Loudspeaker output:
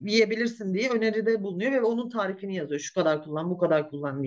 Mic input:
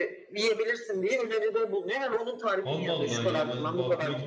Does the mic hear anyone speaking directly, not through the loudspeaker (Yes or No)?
Yes